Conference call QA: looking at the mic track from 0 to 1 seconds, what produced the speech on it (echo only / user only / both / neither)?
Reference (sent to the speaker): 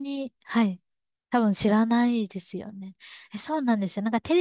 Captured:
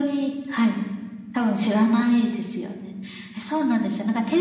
echo only